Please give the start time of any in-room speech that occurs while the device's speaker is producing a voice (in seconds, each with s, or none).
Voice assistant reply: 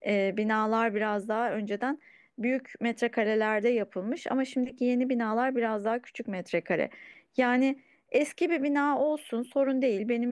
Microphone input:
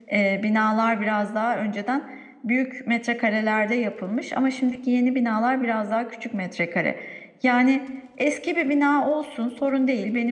none